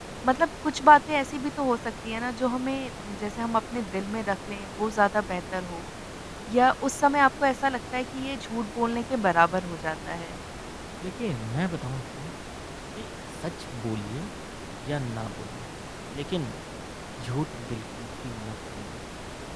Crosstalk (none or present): none